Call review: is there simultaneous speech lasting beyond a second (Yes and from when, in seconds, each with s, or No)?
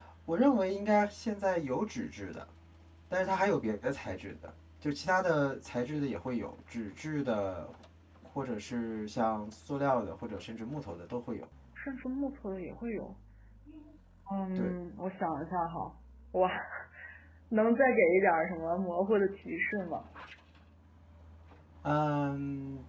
No